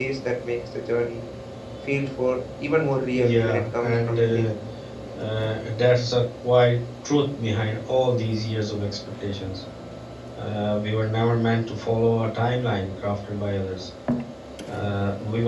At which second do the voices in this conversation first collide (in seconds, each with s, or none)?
3.1 s